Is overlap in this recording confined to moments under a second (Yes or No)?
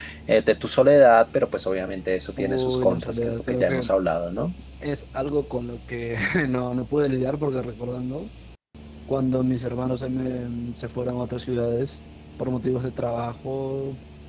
No